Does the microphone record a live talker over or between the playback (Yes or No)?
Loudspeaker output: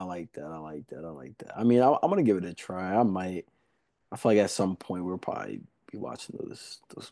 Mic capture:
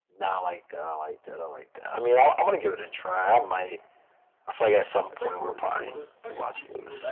Yes